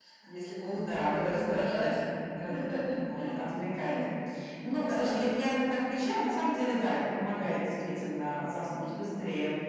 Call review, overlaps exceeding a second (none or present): present